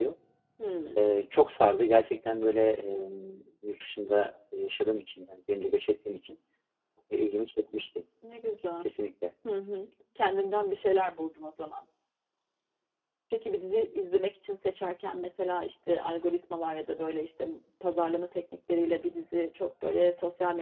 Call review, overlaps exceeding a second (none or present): none